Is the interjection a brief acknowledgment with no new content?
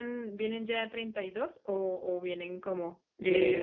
No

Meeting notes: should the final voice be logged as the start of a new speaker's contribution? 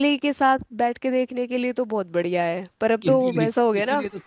Yes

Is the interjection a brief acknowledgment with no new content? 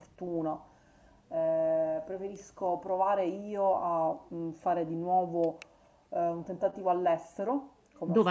Yes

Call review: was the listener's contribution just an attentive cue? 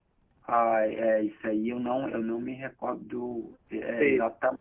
Yes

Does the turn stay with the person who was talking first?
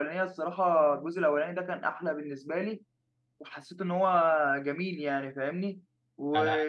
Yes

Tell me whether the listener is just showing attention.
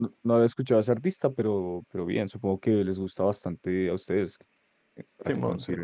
Yes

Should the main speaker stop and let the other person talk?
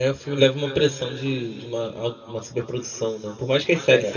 No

